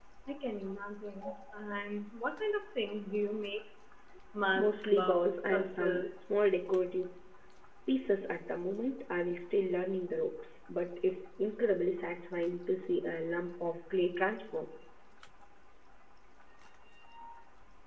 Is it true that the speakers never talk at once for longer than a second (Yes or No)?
No